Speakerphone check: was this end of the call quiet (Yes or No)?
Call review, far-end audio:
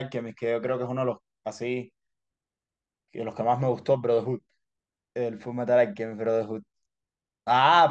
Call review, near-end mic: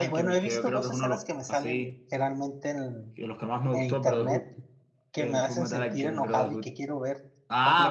No